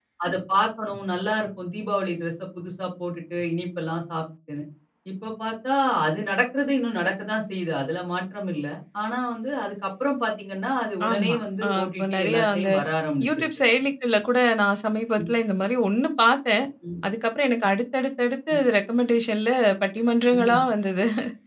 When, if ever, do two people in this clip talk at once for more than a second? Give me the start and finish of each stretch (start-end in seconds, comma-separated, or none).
11.1-12.7